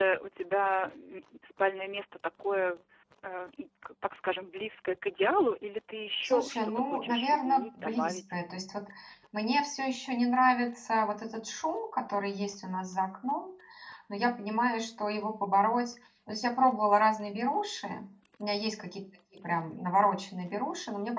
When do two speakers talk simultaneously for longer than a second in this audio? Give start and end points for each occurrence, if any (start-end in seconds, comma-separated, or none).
6.2-8.2